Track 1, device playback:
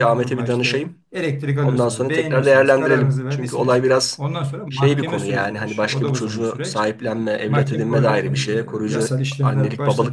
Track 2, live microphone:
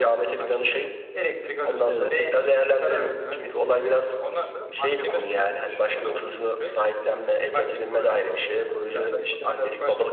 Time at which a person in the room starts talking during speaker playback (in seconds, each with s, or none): 1.9 s